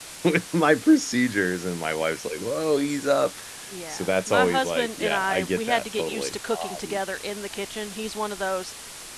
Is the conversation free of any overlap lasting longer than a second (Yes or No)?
No